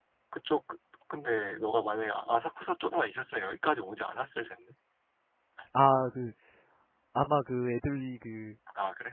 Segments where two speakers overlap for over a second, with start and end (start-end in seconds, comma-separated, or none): none